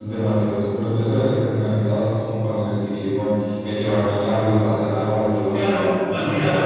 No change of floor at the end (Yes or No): No